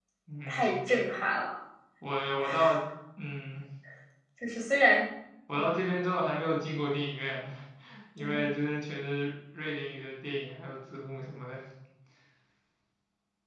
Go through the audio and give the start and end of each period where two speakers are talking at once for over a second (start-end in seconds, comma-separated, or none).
none